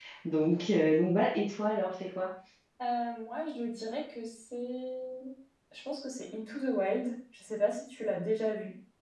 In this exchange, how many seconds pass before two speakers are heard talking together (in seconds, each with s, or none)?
none